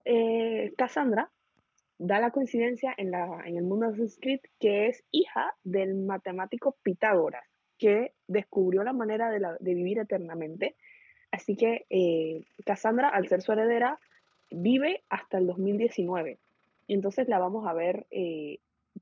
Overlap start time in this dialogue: none

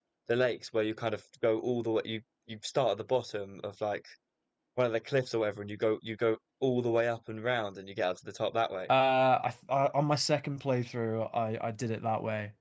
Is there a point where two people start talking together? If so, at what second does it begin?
none

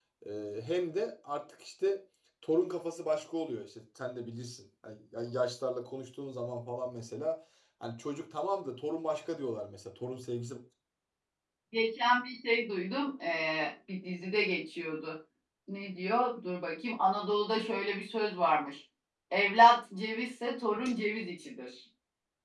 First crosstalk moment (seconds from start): none

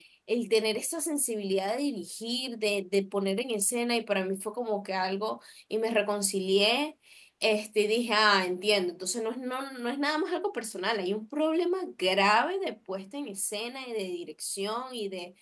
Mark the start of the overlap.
none

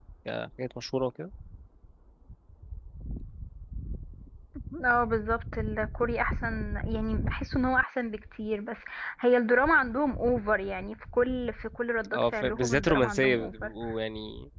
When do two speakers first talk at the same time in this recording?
12.1 s

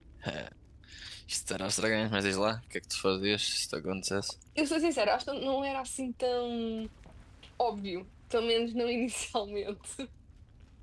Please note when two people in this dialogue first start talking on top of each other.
none

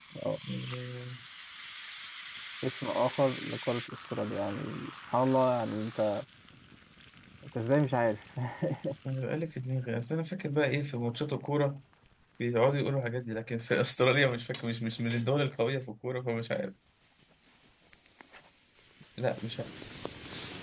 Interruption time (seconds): none

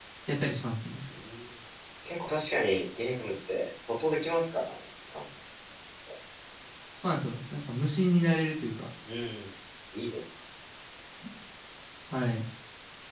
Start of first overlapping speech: none

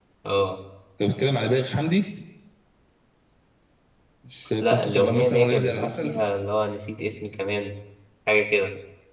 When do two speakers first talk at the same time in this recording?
4.6 s

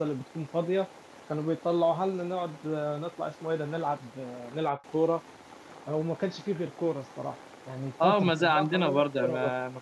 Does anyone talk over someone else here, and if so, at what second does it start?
8.0 s

